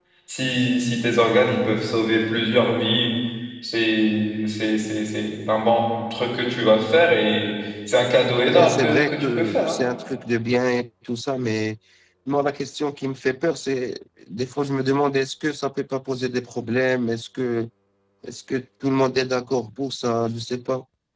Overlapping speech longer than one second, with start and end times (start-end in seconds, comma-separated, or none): 8.4-9.8